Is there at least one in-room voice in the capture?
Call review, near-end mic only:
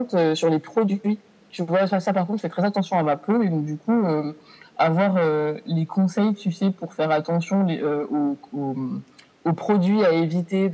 No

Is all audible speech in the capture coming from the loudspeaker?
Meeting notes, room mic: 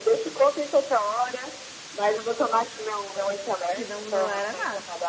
No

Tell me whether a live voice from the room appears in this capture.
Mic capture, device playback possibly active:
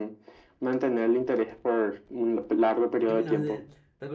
Yes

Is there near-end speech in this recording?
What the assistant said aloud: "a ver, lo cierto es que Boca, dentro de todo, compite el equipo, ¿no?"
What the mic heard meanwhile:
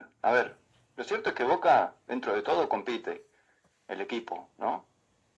No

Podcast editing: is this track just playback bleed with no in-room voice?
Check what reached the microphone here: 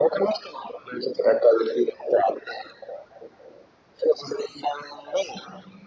Yes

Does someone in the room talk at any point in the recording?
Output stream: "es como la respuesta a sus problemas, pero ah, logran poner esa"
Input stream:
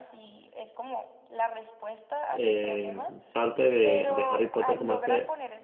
Yes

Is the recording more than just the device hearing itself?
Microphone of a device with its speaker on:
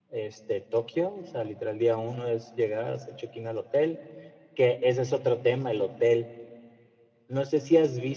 Yes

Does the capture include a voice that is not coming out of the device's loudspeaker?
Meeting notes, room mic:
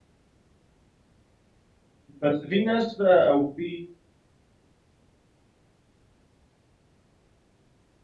Yes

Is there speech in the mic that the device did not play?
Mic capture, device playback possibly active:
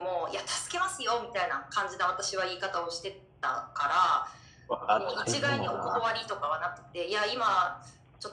Yes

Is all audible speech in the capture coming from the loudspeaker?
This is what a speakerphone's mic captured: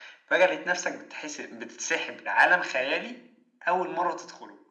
Yes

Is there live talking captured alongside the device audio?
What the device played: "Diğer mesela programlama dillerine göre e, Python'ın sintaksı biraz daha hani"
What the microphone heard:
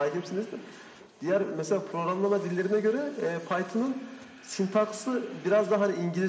No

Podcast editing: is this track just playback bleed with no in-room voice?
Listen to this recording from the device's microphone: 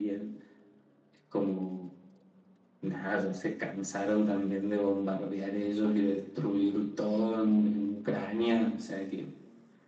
Yes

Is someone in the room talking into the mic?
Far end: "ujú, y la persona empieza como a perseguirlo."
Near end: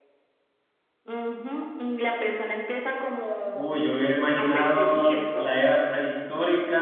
Yes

